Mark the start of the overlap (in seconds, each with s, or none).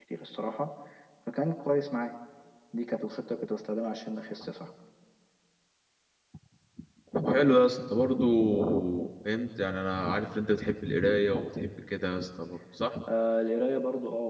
none